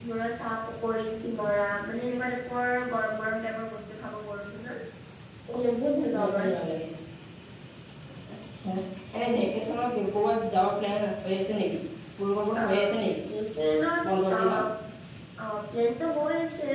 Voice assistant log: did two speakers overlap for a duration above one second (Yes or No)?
No